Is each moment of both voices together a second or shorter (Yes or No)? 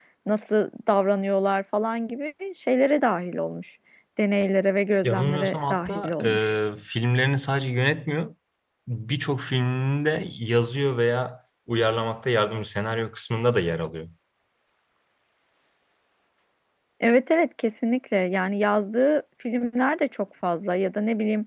No